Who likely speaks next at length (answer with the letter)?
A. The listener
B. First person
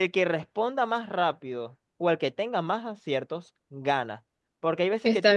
B